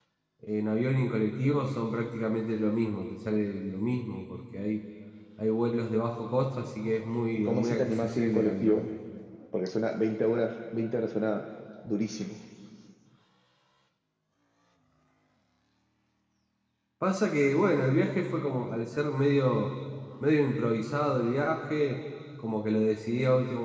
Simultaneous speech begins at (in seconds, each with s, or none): 7.3 s